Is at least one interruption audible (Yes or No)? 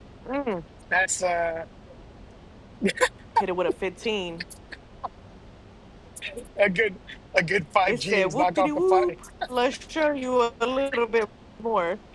Yes